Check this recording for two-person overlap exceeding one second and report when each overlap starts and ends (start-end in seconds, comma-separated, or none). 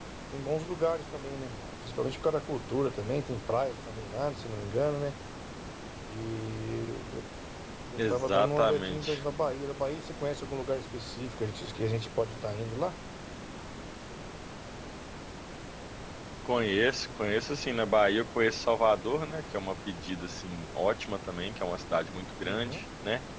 8.0-9.2